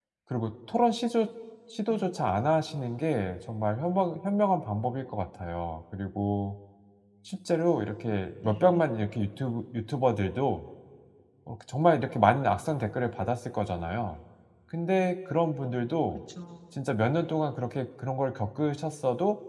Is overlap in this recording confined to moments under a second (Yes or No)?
Yes